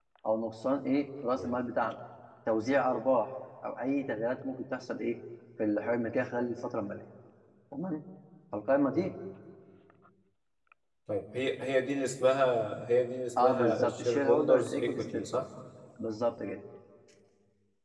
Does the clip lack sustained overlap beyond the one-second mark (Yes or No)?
No